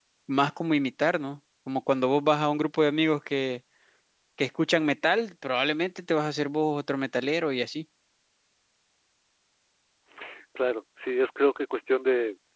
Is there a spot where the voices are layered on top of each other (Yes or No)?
No